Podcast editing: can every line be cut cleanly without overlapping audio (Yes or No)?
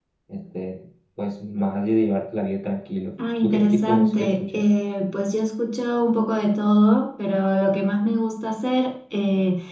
No